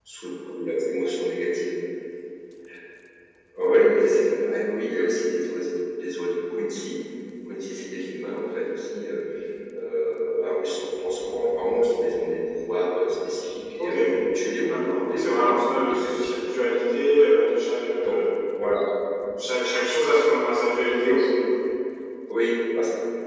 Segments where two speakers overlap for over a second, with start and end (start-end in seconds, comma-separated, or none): 14.7-16.4